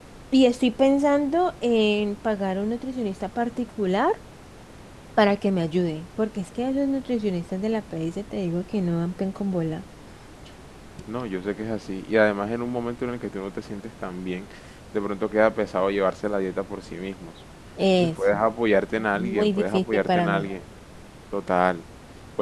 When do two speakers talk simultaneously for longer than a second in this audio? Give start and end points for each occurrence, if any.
19.1-20.5

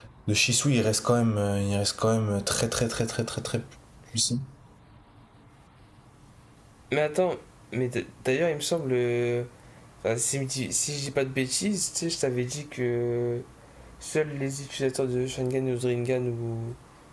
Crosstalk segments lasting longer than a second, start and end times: none

